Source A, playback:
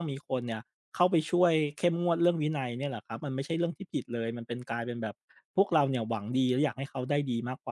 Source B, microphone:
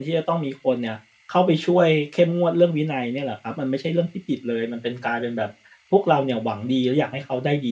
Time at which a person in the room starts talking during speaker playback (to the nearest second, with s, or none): none